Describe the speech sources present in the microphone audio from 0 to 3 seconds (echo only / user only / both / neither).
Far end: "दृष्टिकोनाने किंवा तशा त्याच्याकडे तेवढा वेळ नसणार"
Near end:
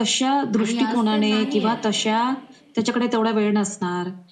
both